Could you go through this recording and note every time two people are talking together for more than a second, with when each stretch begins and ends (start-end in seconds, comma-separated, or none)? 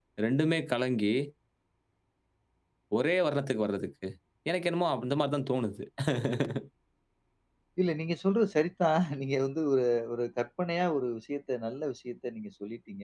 none